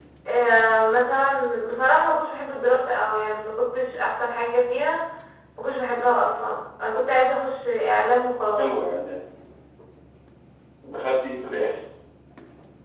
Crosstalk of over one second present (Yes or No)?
No